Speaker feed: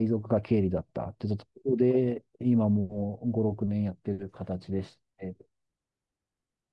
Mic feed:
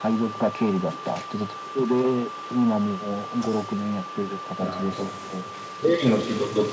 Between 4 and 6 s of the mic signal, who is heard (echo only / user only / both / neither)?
both